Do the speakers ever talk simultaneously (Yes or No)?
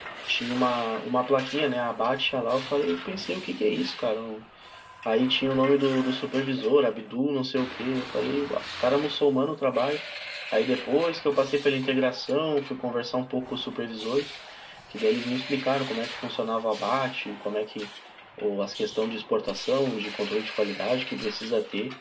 No